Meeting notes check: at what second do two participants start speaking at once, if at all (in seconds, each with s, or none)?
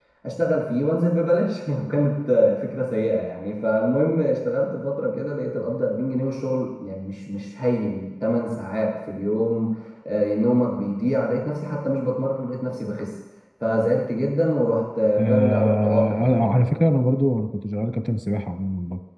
15.2 s